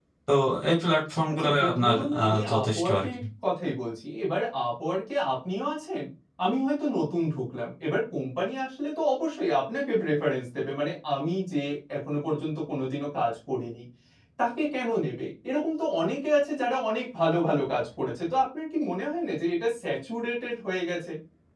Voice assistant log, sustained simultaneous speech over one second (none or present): present